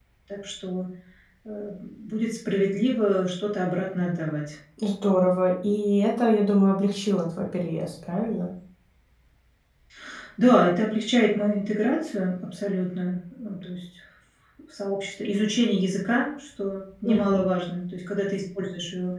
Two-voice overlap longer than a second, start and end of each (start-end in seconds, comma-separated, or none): none